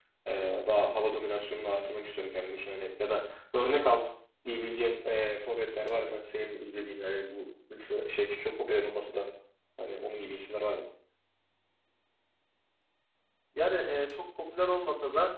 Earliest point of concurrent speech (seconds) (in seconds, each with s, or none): none